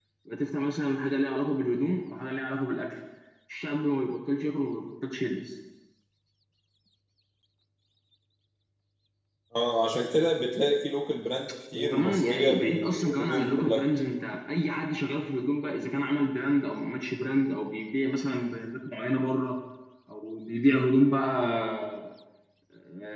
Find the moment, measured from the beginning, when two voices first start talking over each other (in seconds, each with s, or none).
11.7 s